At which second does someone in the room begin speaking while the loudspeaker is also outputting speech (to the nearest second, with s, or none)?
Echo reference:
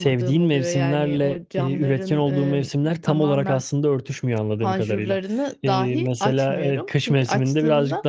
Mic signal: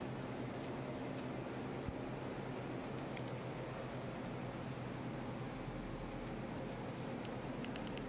none